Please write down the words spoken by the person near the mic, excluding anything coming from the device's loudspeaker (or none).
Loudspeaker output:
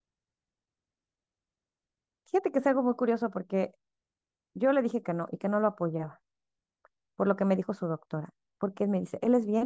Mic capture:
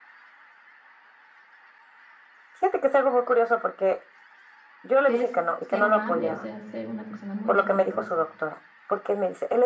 que es ser amable, o sea, ser una persona muy caballerosa.